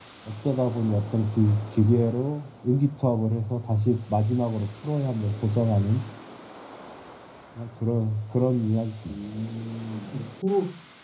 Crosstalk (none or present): none